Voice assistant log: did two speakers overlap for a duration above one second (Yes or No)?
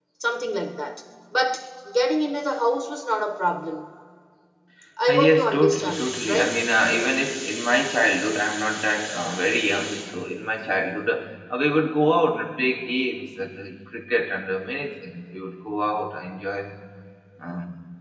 Yes